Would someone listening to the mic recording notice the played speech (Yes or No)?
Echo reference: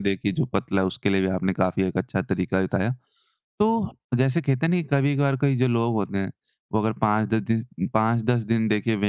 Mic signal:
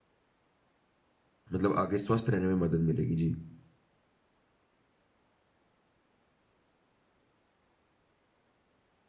No